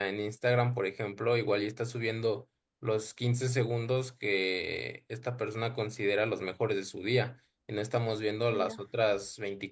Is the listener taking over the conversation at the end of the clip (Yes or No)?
No